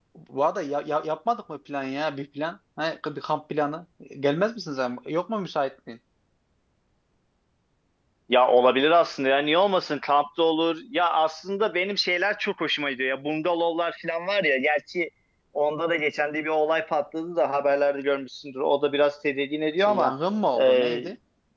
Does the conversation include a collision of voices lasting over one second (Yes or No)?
No